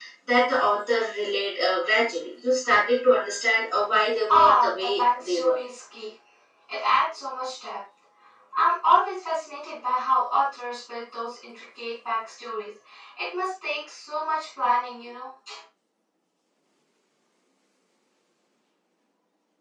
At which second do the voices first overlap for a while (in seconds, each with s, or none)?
4.1 s